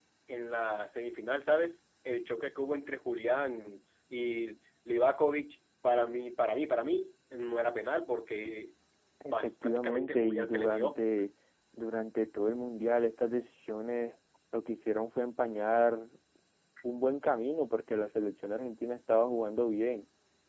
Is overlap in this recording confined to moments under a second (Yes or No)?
No